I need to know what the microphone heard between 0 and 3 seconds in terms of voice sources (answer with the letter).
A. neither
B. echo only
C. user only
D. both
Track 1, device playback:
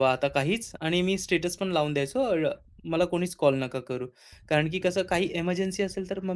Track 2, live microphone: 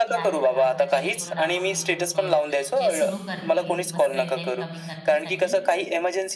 D